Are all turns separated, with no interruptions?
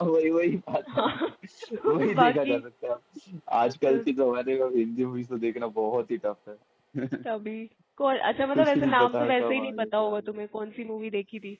No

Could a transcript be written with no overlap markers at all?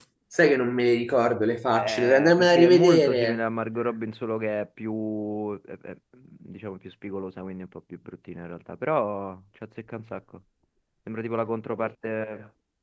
No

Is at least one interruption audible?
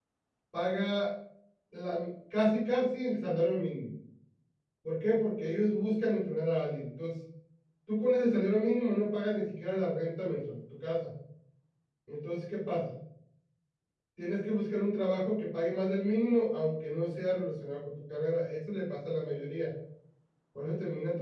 No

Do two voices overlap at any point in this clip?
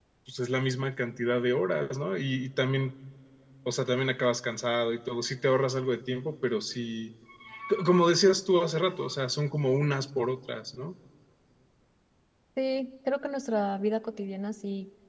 No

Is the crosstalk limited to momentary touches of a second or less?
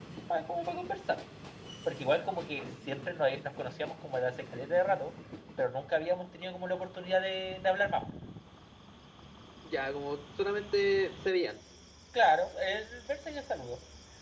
Yes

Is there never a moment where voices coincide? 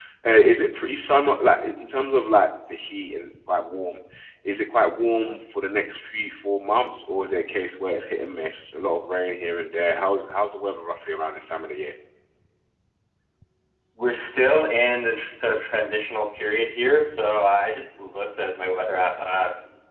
Yes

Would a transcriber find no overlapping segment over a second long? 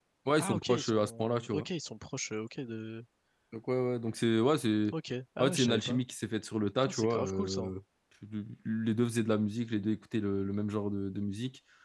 No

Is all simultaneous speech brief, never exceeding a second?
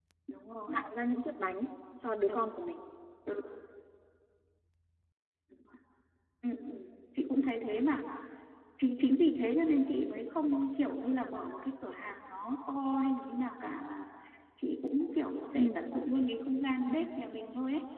Yes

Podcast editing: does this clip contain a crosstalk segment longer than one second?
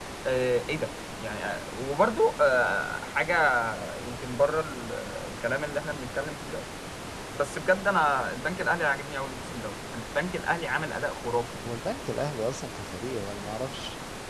No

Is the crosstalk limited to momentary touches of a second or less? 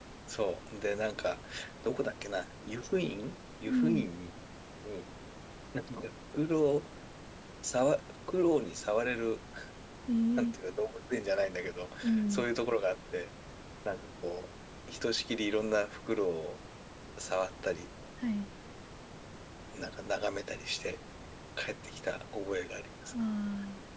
Yes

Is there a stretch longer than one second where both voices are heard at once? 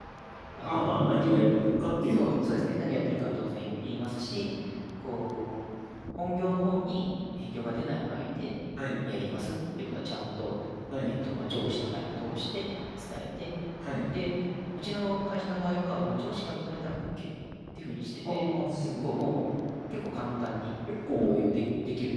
Yes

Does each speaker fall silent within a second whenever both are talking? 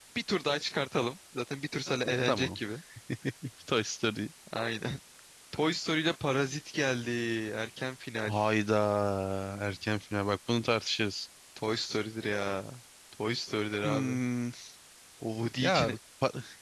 Yes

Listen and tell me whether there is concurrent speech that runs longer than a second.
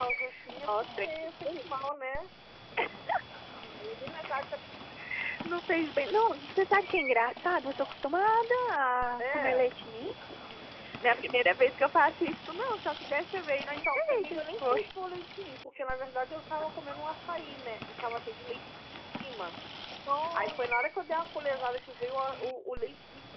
Yes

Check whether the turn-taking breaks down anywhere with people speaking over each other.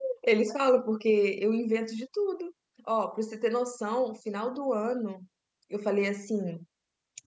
No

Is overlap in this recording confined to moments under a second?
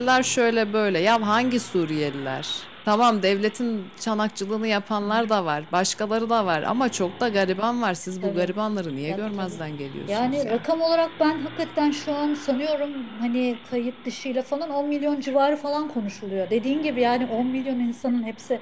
Yes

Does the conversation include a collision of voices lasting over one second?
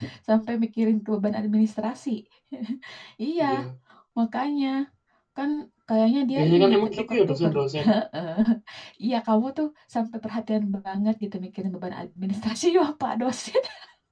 Yes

